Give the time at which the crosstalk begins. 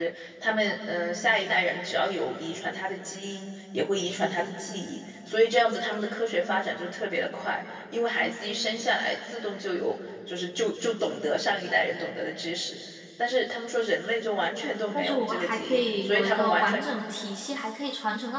15 s

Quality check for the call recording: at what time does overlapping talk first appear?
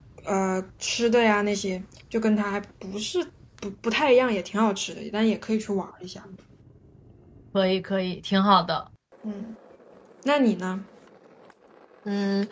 none

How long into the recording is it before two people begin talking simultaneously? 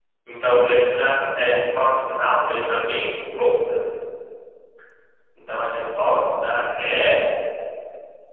none

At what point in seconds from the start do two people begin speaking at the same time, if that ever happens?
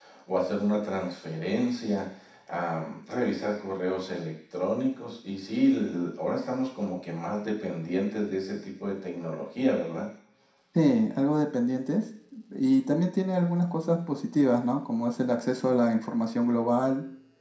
none

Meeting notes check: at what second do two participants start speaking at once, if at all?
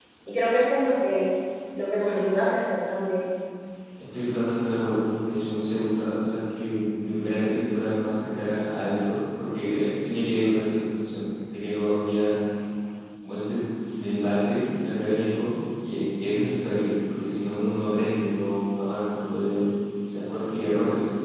none

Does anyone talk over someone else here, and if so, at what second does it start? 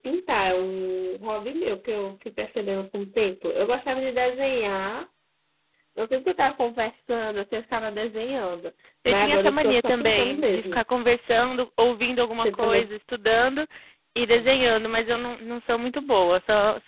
9 s

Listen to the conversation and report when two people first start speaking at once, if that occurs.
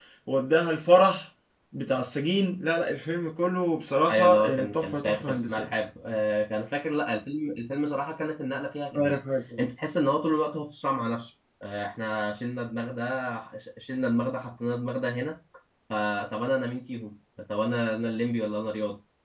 4 s

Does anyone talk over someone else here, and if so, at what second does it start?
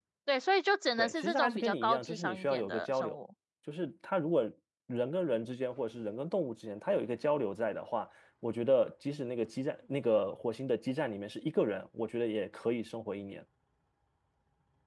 1 s

